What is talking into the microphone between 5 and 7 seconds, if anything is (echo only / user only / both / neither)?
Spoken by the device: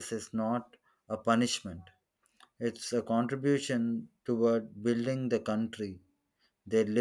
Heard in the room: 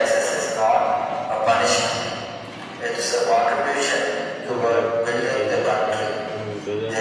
both